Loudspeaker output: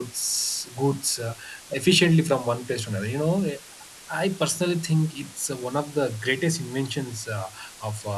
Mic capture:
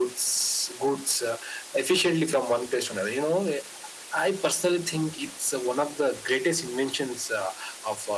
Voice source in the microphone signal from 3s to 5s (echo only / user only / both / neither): echo only